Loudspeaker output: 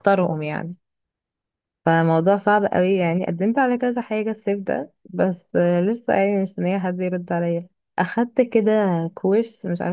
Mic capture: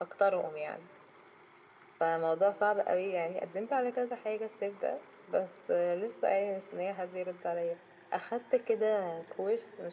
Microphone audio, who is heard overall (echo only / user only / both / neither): echo only